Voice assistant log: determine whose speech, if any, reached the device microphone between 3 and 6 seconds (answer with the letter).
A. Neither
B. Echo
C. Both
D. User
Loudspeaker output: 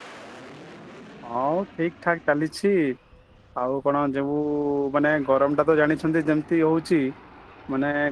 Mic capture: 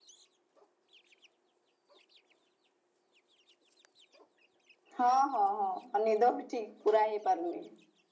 D